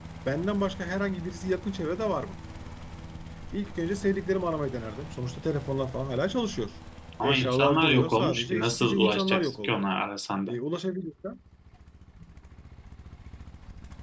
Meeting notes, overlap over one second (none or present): present